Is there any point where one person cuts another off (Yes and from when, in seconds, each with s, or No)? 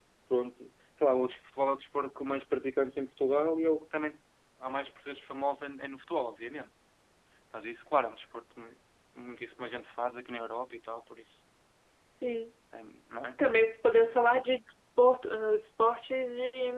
No